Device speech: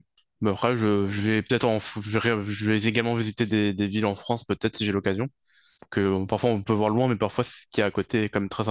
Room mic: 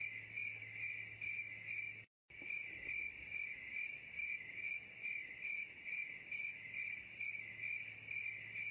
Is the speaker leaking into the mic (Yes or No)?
No